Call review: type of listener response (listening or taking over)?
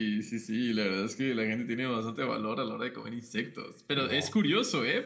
listening